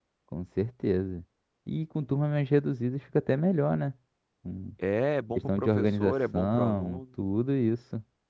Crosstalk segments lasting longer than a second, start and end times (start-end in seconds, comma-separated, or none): 5.3-7.0